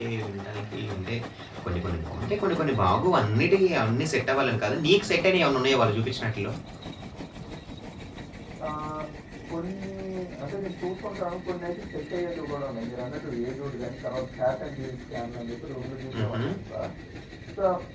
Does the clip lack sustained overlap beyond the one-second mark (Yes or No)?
Yes